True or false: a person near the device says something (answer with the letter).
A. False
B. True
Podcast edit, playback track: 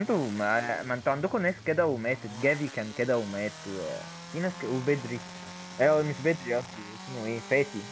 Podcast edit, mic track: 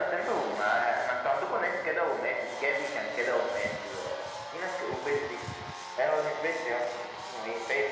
A